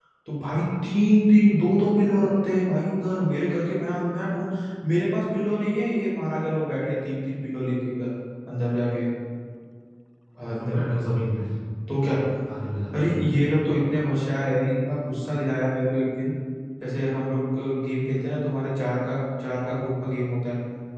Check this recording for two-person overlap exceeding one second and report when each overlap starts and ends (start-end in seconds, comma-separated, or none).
none